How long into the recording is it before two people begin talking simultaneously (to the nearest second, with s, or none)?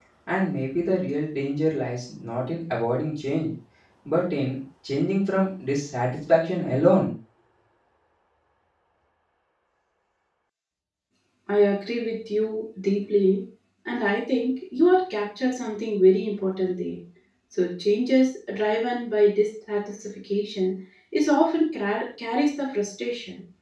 none